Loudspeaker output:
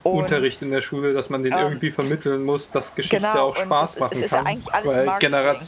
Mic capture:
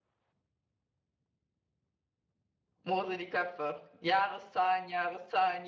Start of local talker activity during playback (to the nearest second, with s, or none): 3 s